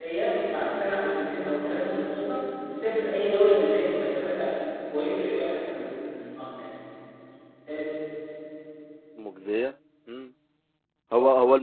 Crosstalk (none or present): none